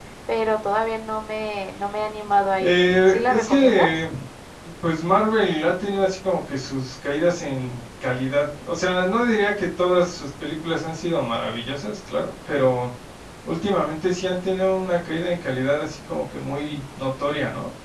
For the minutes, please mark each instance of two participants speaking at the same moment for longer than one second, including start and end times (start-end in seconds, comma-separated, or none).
2.6-4.1